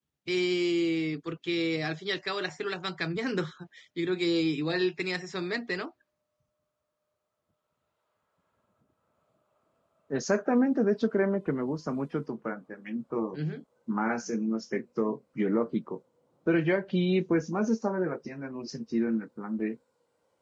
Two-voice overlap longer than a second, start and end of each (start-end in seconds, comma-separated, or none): none